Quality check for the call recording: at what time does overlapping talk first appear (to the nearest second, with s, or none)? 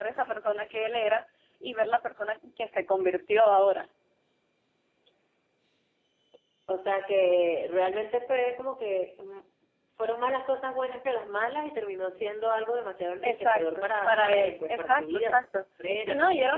13 s